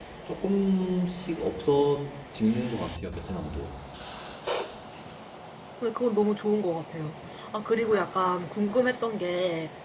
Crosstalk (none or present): none